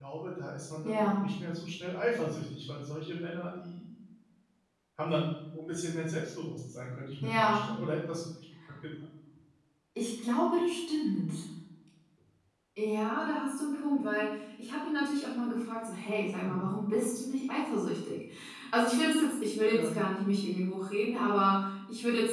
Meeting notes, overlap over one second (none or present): none